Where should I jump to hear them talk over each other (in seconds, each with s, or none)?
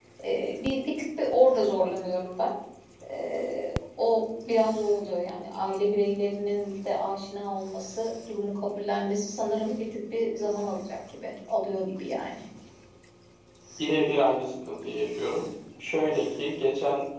none